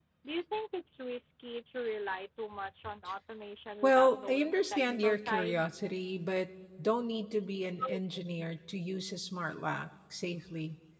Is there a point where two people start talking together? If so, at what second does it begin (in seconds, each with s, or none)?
3.8 s